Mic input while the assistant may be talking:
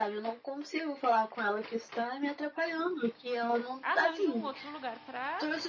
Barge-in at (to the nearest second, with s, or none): 4 s